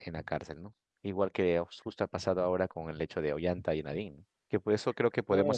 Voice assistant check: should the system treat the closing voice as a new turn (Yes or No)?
No